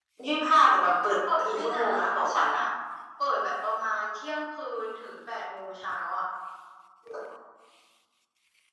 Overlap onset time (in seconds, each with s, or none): 0.8 s